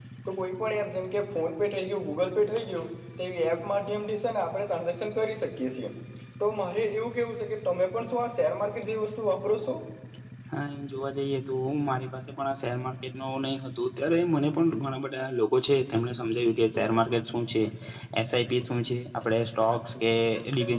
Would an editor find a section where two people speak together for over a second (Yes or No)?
No